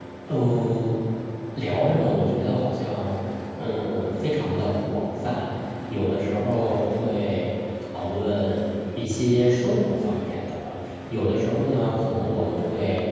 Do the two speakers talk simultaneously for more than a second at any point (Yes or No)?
No